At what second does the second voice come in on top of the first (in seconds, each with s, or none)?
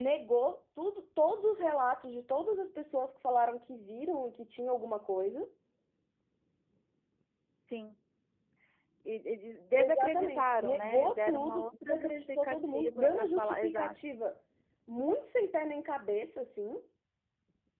9.8 s